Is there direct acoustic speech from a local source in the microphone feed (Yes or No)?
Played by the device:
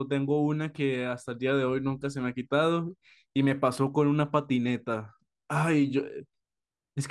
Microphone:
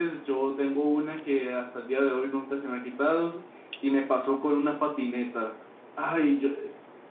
No